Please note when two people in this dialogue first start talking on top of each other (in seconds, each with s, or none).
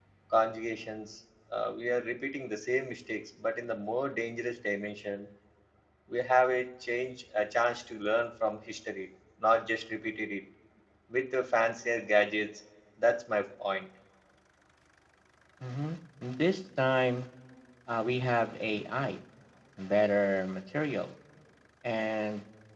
none